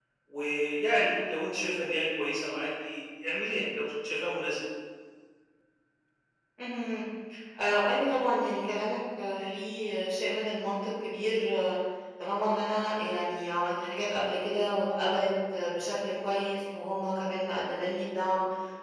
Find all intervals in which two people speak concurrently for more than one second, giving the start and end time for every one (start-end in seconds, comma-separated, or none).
none